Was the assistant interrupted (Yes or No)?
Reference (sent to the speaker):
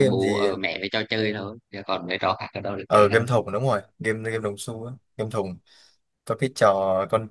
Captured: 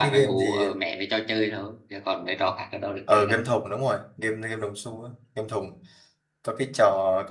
No